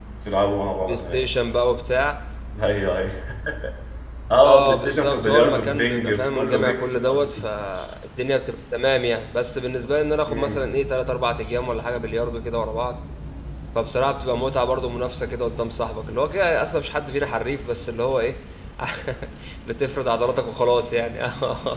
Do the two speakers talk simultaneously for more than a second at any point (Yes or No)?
Yes